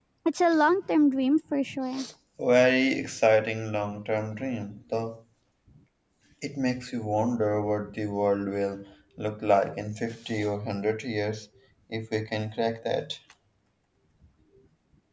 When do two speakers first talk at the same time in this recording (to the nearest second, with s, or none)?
none